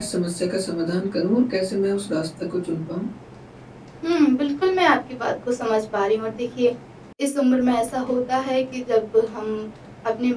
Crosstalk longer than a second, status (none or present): none